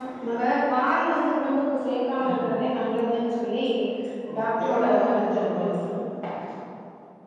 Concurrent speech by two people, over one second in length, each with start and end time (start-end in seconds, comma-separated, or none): 4.4-5.7